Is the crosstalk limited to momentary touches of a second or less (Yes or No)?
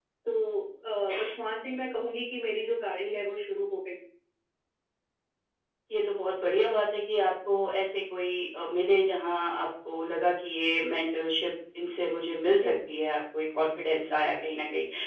Yes